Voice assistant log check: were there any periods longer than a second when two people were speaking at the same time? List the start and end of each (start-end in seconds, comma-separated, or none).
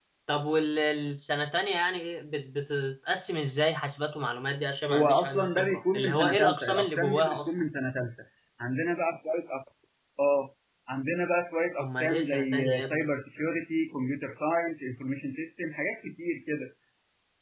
4.9-7.5, 11.8-13.1